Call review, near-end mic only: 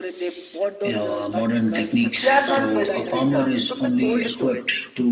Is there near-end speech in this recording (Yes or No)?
Yes